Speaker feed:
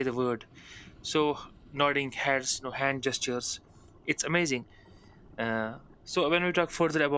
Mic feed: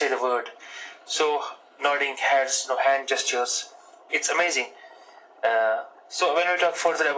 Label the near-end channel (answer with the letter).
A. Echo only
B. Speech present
A